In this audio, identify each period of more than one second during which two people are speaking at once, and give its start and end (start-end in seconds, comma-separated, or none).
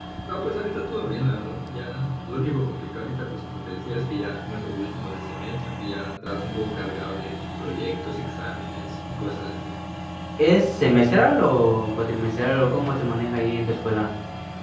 none